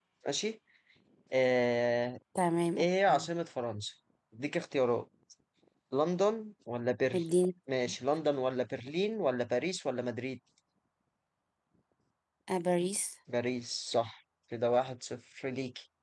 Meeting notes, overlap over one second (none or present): none